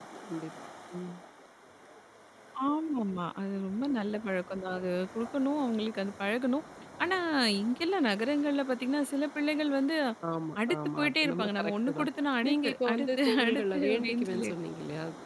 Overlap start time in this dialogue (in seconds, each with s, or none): 10.7 s